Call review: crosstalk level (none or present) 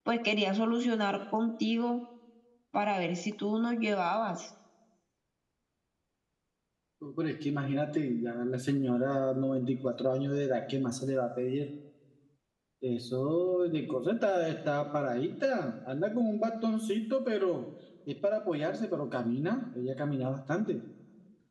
none